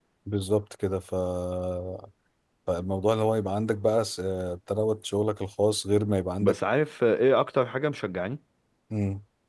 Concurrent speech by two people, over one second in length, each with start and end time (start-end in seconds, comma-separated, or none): none